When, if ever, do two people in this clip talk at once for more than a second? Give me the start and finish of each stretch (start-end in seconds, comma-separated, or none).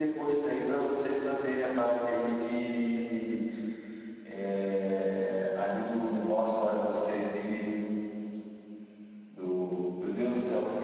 none